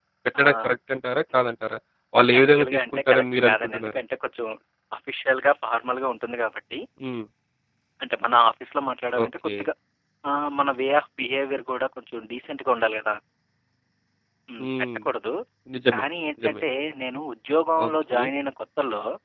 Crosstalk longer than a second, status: present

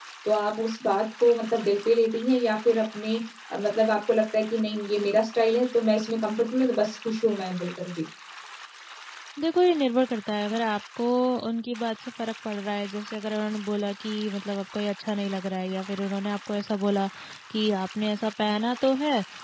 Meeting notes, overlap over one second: none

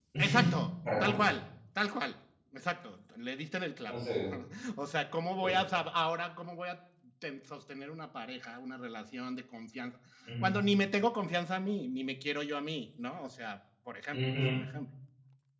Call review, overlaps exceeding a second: none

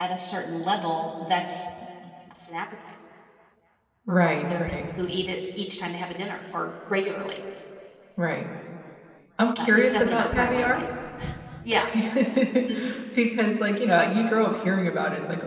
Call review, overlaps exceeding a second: present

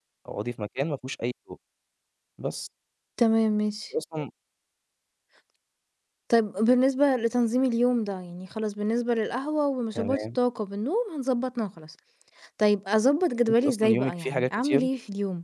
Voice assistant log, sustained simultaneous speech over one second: present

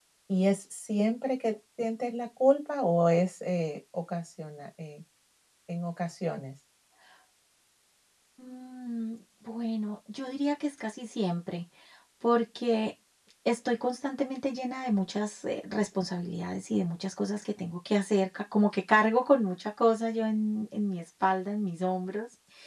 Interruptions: none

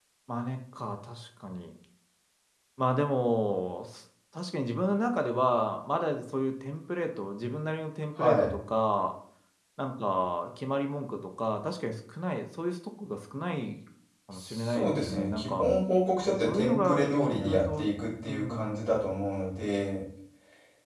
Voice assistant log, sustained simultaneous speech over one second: present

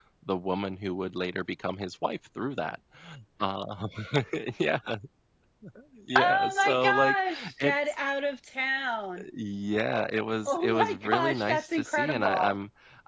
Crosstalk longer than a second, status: present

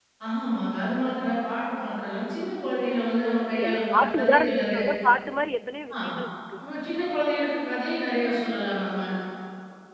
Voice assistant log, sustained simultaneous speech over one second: present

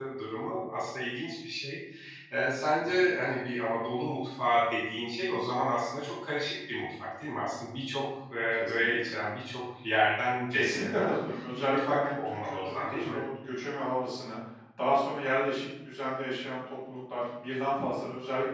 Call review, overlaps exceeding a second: present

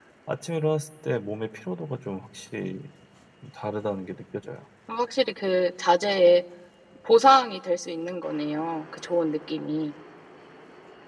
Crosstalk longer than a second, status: none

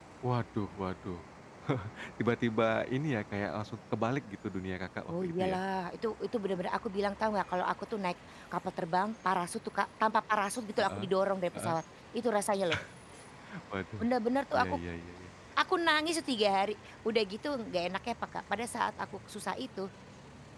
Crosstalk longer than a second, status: none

